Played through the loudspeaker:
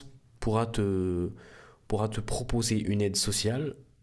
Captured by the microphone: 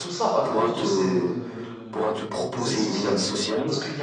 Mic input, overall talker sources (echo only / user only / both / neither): both